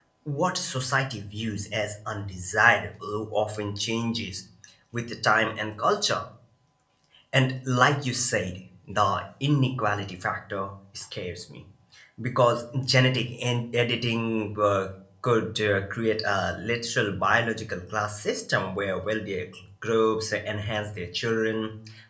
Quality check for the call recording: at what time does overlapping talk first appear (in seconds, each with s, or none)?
none